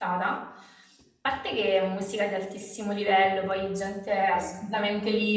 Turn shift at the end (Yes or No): No